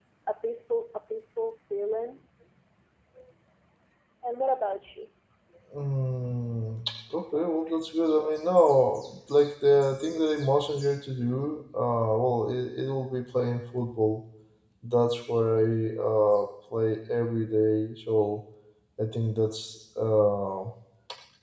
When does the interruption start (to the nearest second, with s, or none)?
none